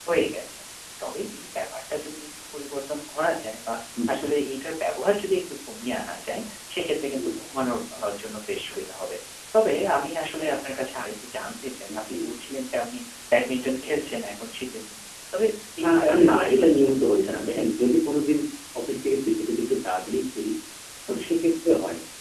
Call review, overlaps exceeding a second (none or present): present